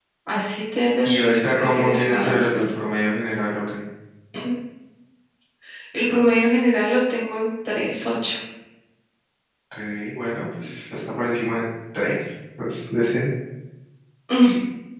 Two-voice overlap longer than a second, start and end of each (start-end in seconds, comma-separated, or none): 1.0-2.6